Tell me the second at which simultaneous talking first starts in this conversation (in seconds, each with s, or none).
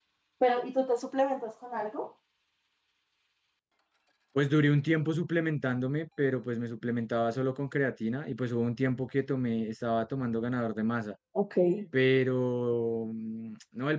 none